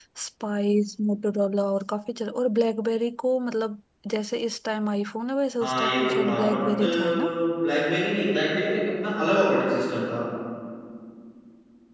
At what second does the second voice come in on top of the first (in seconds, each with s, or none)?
5.6 s